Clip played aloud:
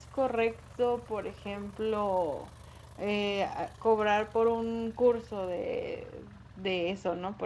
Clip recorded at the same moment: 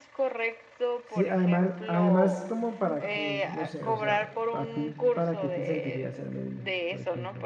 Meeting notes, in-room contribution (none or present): present